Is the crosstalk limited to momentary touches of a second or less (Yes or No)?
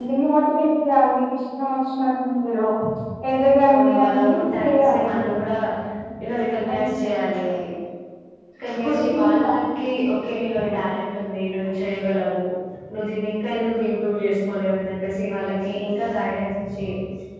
No